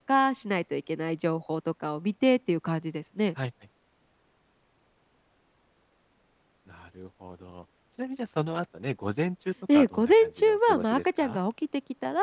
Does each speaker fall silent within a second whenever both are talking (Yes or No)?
No